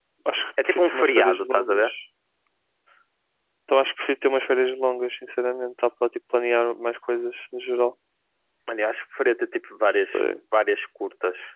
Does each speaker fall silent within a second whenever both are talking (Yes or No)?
No